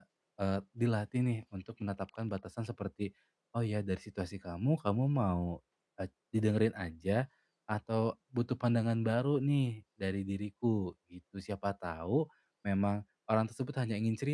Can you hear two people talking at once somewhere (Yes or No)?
No